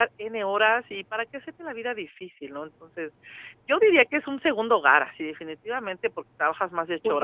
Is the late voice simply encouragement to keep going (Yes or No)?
No